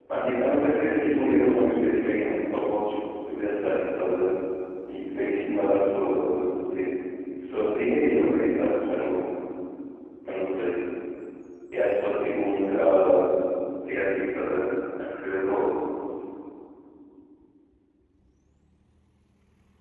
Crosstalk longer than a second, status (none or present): present